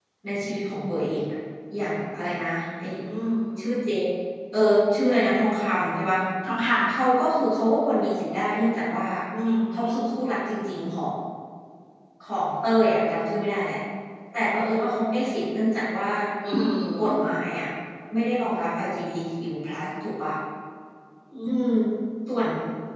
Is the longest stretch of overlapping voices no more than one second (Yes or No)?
Yes